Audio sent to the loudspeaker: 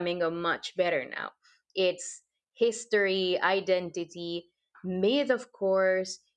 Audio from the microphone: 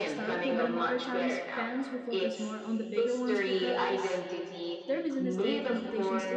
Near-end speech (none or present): present